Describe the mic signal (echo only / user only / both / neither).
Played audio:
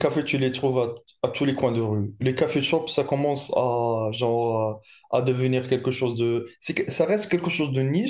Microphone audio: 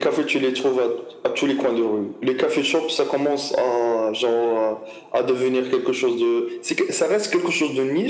echo only